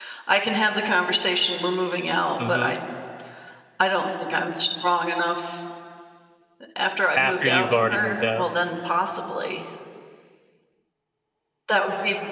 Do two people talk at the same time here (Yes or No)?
Yes